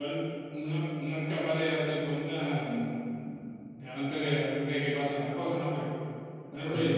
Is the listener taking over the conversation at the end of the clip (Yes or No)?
No